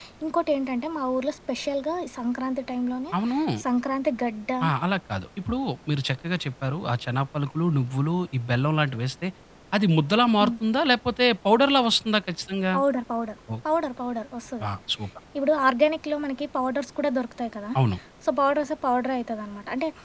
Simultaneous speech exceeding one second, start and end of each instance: none

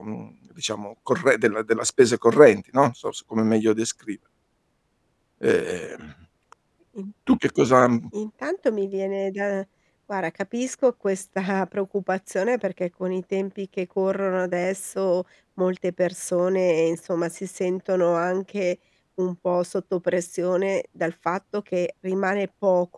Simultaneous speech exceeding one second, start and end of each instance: none

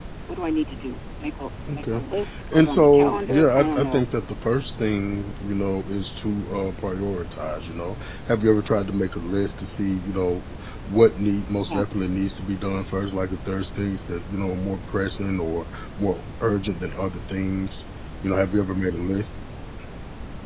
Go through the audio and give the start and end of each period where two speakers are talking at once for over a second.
2.5-4.0

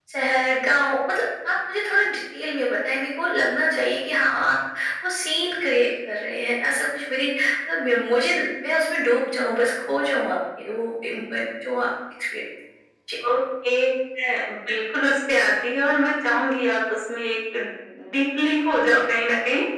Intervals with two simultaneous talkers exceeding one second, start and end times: none

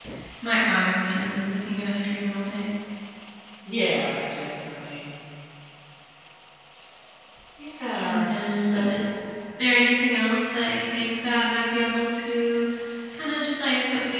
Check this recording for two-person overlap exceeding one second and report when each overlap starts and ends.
8.1-9.3

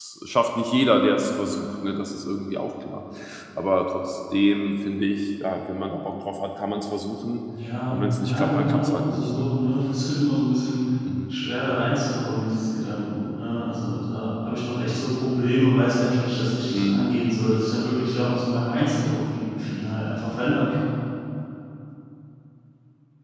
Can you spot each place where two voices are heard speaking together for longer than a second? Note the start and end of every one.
7.9-9.5

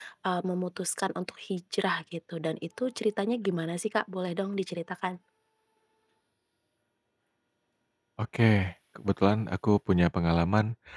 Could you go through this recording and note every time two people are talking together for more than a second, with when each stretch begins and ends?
none

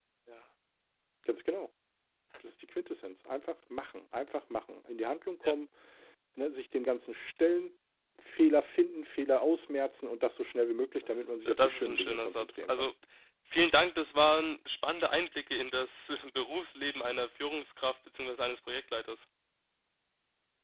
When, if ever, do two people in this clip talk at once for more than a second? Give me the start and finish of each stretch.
11.0-12.9

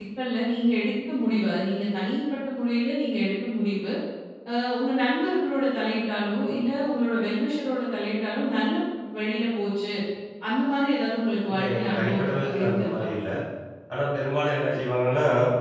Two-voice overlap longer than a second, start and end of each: 11.5-13.1

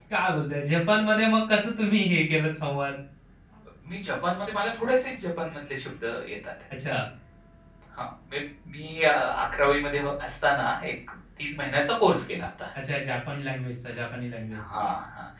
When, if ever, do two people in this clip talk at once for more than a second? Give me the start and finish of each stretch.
none

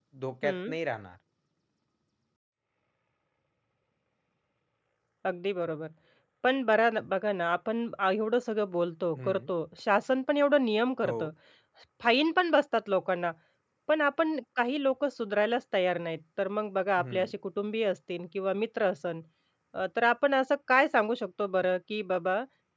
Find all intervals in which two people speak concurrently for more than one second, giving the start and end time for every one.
none

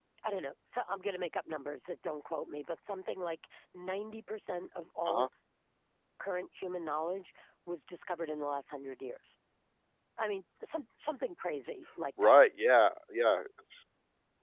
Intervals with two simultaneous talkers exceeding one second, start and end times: none

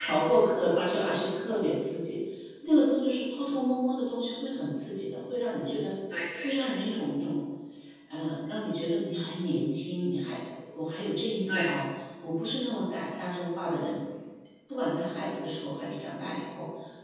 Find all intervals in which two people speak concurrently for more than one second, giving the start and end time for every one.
none

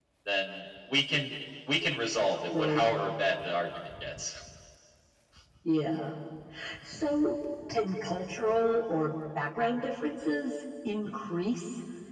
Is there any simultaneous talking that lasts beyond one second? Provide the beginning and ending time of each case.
none

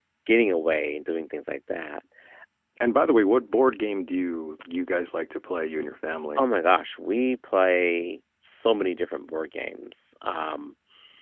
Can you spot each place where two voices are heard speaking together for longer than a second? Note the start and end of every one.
none

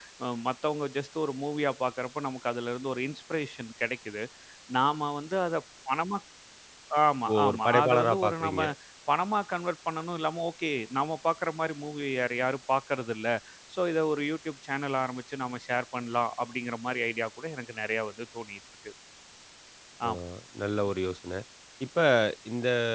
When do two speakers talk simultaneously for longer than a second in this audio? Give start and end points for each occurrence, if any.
7.3-8.6

